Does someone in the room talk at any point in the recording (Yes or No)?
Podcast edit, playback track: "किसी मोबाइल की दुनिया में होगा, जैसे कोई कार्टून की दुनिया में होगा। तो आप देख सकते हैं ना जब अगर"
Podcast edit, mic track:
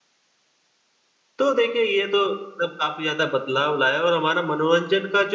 Yes